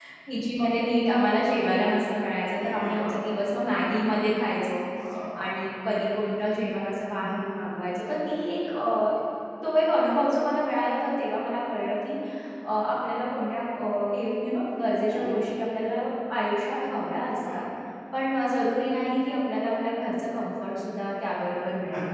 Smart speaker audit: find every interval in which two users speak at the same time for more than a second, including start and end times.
none

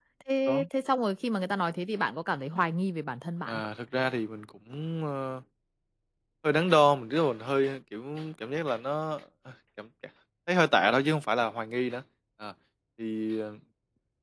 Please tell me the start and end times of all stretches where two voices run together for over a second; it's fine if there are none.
none

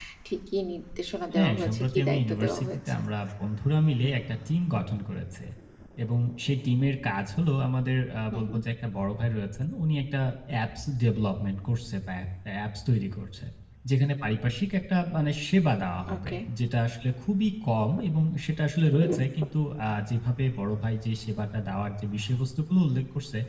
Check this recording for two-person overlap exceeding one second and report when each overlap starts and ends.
1.4-3.0

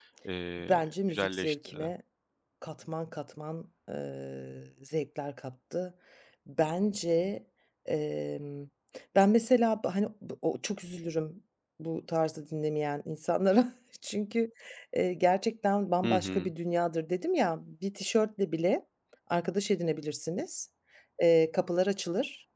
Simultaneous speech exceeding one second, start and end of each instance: 0.7-1.9

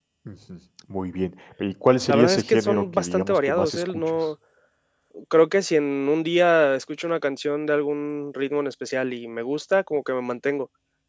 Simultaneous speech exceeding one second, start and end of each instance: 2.1-4.3

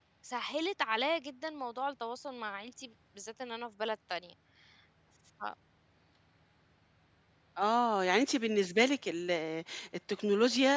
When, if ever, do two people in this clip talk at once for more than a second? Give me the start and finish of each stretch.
none

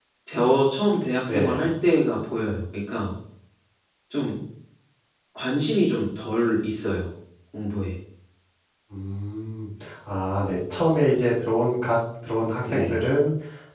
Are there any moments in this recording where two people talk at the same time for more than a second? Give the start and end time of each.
none

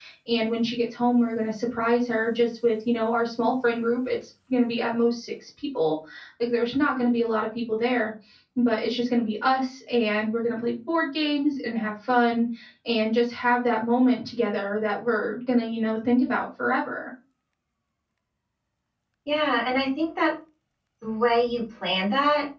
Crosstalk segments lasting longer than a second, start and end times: none

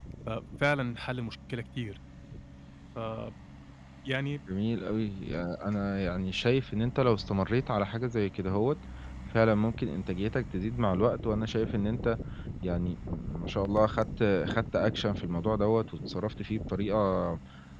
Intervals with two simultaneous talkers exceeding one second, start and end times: none

